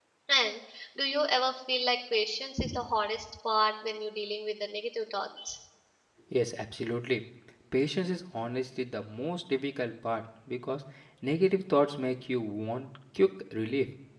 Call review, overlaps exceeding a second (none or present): none